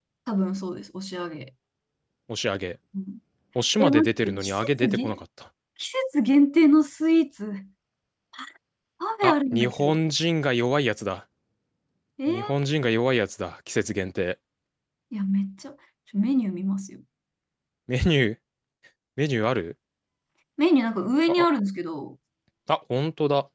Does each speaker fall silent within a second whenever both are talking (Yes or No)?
No